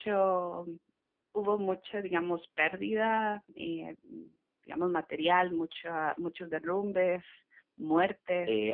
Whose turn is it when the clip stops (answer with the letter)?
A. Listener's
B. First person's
A